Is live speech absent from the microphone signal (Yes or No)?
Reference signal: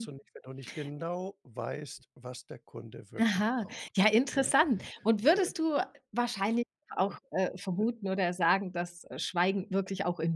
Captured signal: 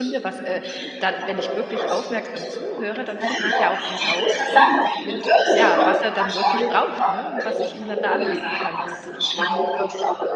No